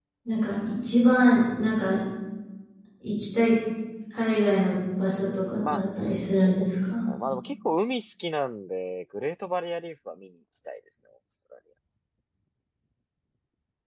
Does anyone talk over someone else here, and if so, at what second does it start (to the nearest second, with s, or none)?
5 s